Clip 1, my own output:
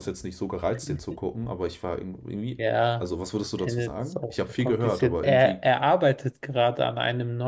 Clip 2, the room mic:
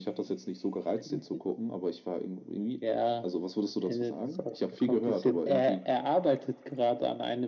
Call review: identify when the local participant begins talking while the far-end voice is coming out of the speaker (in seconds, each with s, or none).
none